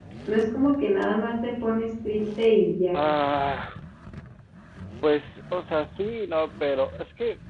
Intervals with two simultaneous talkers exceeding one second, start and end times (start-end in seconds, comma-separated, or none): none